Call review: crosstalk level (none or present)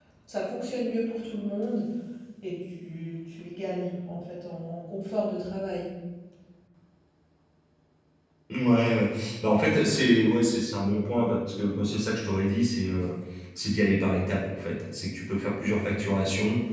none